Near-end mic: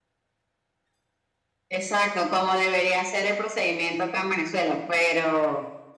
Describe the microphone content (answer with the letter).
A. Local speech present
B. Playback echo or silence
B